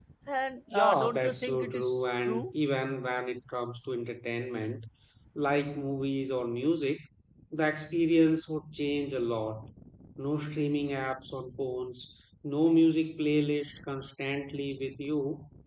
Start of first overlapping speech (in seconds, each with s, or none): 0.7 s